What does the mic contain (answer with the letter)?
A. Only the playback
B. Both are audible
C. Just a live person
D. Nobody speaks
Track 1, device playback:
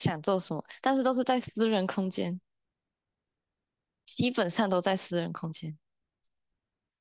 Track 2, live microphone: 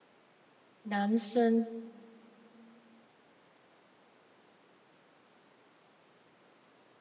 C